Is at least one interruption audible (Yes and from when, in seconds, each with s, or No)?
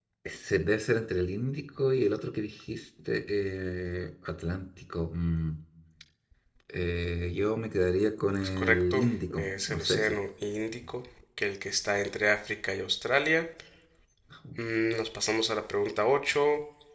Yes, from 8.6 s